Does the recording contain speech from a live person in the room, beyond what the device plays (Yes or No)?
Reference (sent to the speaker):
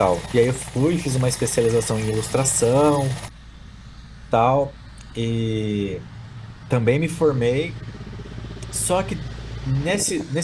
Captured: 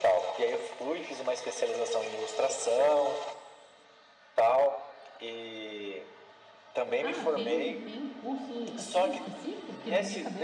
Yes